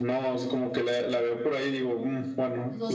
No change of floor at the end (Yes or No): No